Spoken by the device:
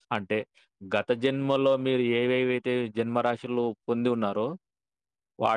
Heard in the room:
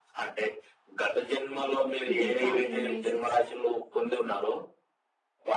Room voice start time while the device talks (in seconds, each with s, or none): 2.1 s